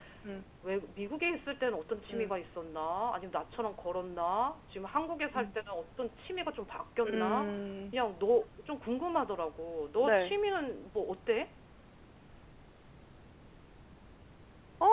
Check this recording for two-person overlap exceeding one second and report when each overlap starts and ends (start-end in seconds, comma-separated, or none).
none